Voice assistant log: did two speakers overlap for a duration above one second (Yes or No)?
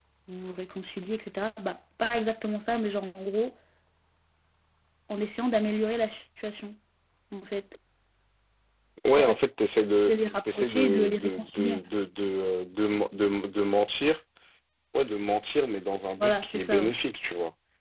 Yes